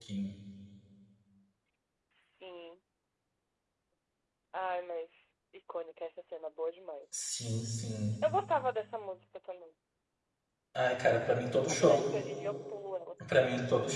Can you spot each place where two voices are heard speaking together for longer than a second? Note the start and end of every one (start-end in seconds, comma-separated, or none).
none